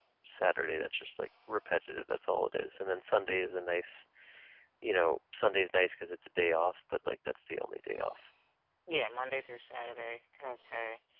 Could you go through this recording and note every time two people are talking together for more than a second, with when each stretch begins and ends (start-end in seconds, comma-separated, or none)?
none